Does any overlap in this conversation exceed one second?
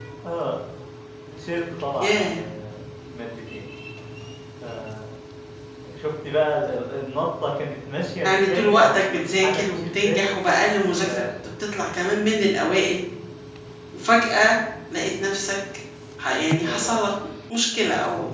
Yes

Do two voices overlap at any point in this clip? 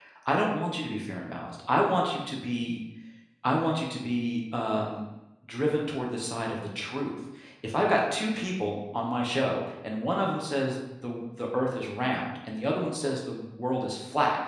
No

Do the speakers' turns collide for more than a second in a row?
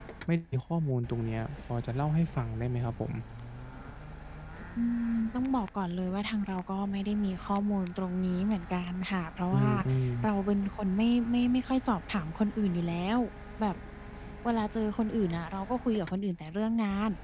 No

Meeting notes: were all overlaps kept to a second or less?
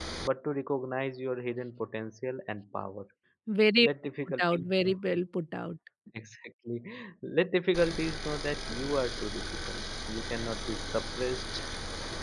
Yes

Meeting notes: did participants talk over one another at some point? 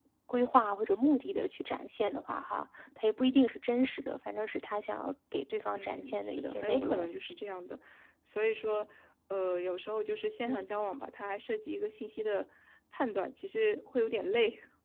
Yes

